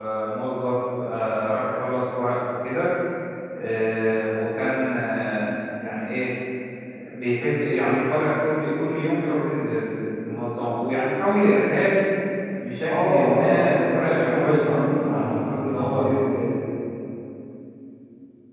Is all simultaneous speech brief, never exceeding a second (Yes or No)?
No